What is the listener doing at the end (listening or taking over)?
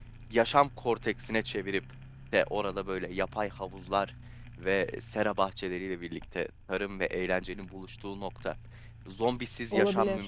listening